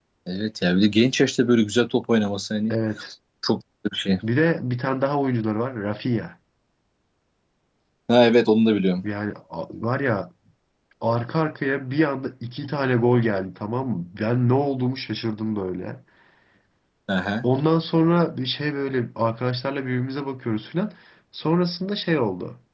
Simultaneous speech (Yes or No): No